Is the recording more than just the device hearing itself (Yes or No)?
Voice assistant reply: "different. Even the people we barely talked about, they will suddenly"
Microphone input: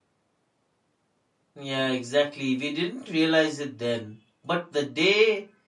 Yes